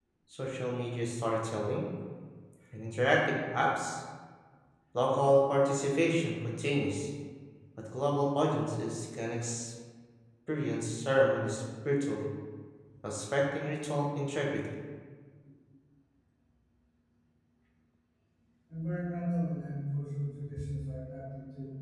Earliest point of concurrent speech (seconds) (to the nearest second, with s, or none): none